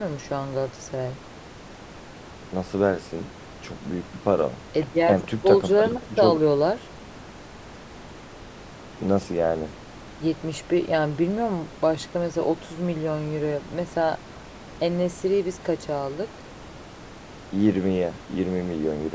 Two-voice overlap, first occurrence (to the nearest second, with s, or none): 5 s